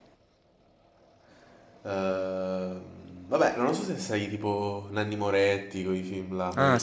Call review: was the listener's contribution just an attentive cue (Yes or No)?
No